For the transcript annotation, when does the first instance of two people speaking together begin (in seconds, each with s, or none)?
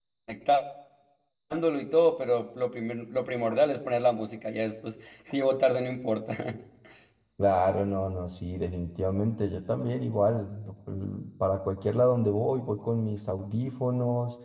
none